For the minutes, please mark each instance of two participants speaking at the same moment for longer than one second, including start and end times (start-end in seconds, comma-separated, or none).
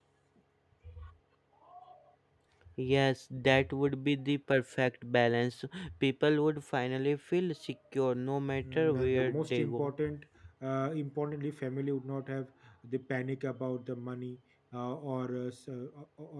8.6-9.9